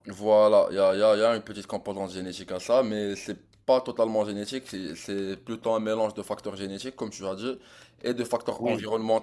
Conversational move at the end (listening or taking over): listening